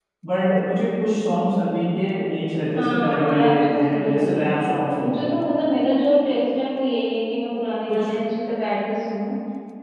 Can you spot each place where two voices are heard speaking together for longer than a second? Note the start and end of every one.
2.8-5.3

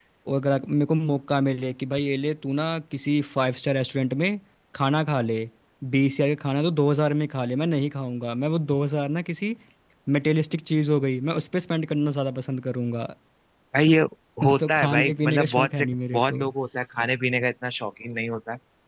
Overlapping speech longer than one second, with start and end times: 14.6-16.4

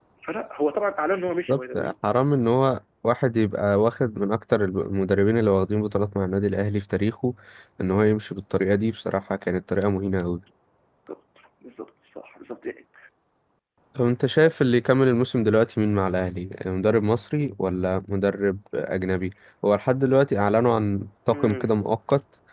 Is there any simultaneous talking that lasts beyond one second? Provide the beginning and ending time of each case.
none

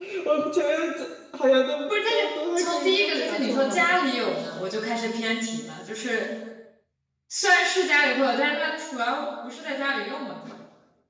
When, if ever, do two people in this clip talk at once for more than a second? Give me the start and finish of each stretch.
2.6-4.0

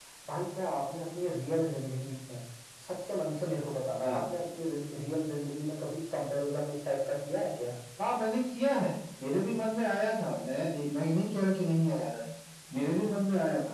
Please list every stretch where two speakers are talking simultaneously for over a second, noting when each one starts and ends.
none

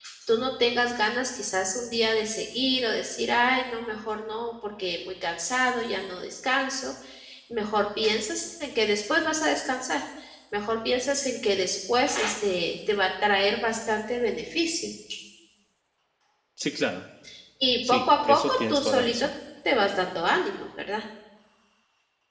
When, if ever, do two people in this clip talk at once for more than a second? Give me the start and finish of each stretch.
17.9-19.3

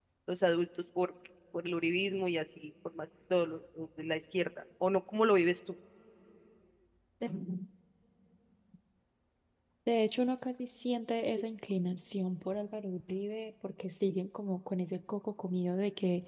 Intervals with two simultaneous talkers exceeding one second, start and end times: none

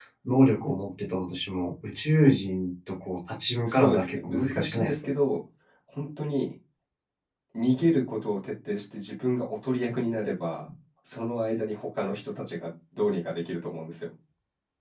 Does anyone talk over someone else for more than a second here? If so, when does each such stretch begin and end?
3.7-5.0

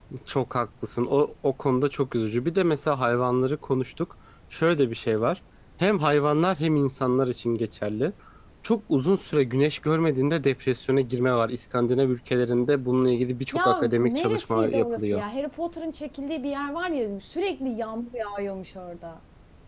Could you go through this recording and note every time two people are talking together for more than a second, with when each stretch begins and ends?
13.5-15.2

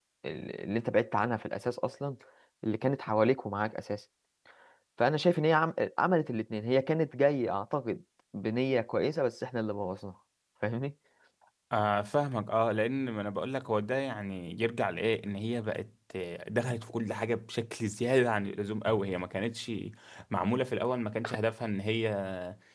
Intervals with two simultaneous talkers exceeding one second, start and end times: none

